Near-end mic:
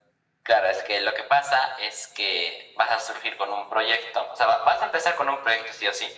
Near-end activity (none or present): none